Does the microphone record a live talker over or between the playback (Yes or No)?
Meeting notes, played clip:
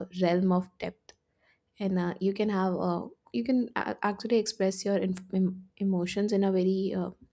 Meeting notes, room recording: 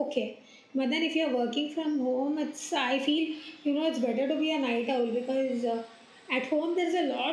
Yes